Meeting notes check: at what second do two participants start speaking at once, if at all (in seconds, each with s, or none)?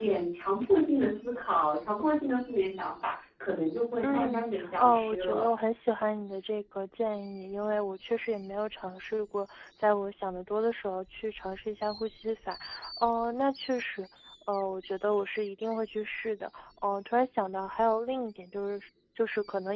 4.0 s